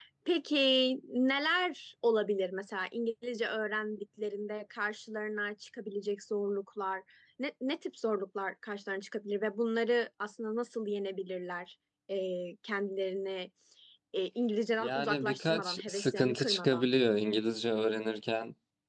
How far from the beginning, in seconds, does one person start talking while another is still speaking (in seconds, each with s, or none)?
14.8 s